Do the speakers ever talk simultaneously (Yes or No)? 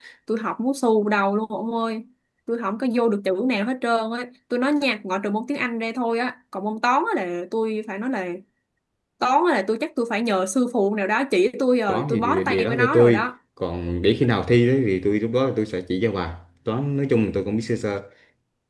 Yes